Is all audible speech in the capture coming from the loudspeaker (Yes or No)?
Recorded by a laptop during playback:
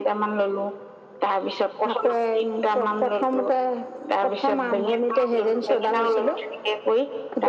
Yes